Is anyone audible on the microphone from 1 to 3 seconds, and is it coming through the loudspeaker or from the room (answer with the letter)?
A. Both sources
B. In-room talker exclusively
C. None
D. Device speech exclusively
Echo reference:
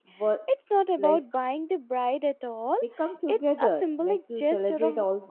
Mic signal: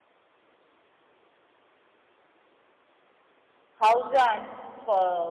C